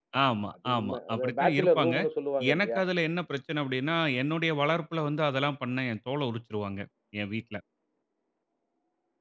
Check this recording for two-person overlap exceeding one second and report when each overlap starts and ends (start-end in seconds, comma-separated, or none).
0.6-1.9